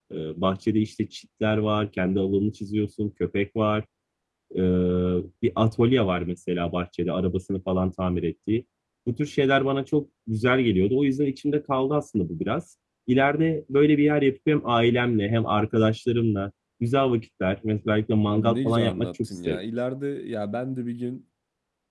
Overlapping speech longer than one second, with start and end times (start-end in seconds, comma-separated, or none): 18.2-19.6